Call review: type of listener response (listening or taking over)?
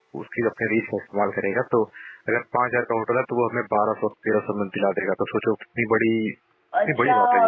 taking over